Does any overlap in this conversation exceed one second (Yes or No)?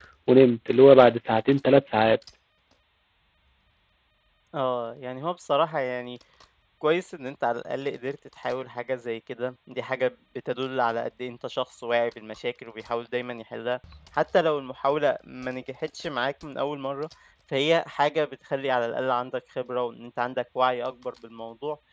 No